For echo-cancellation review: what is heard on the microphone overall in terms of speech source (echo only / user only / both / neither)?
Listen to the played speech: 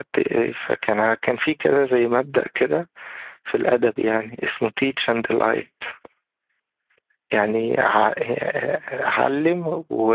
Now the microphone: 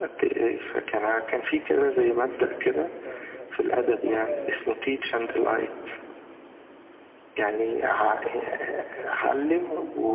both